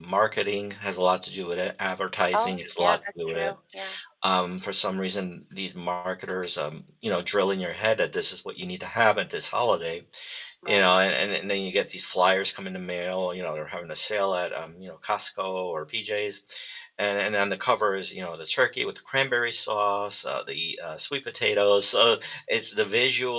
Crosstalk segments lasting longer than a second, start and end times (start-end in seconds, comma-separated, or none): 2.3-3.5